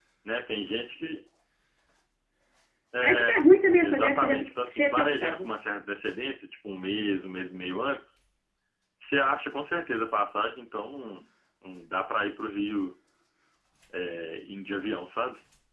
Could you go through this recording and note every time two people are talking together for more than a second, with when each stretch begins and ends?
3.8-5.5

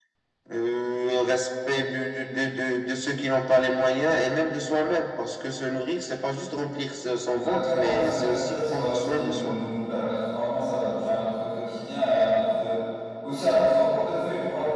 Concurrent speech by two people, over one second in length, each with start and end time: 7.3-9.6

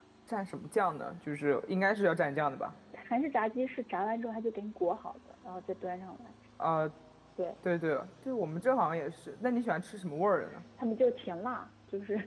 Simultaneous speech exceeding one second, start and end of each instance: none

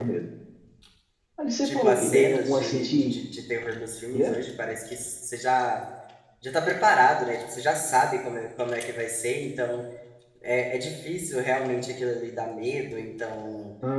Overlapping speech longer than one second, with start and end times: 1.6-3.2

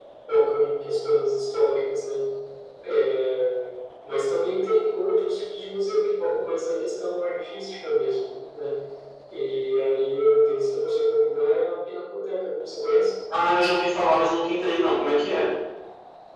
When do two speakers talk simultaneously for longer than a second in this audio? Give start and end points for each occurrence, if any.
none

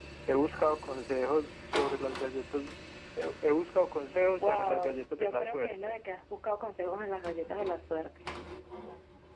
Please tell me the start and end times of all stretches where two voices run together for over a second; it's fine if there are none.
4.4-6.0

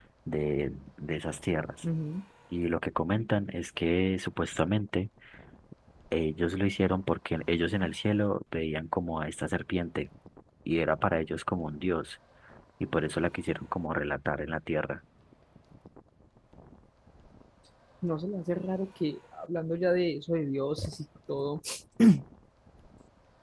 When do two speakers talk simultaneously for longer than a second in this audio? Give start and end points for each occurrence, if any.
none

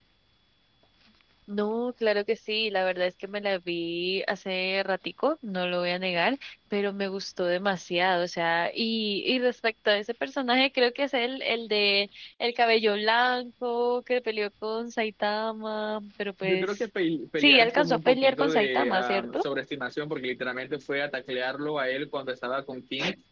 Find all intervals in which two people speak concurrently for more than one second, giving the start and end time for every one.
17.4-19.4

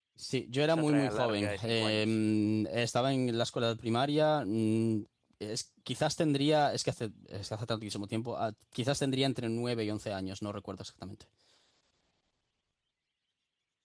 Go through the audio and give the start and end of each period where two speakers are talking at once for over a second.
0.7-2.2

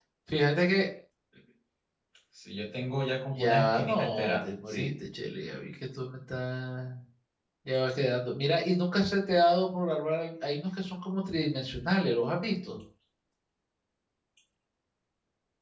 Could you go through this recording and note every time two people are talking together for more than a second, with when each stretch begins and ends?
3.3-4.9

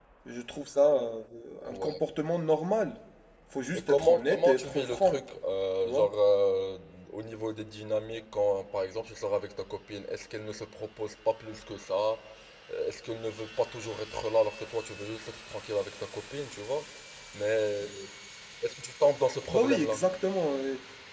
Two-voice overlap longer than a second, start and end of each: 3.8-5.2

